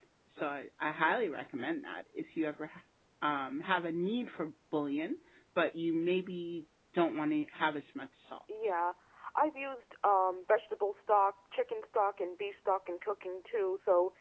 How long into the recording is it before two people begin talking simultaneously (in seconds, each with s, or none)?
none